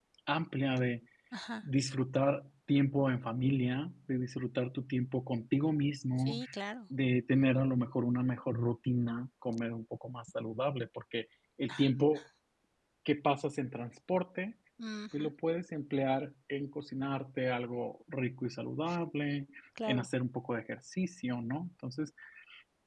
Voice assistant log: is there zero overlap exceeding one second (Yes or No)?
Yes